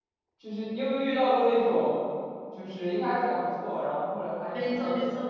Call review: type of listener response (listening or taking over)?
taking over